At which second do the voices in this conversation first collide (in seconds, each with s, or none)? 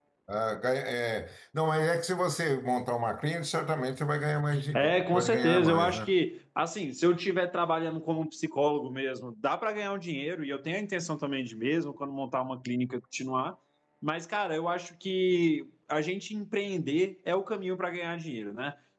4.5 s